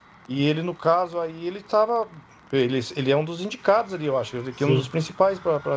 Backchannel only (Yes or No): Yes